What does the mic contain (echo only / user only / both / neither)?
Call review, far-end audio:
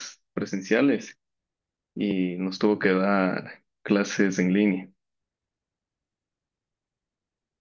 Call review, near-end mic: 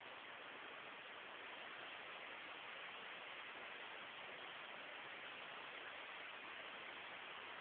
neither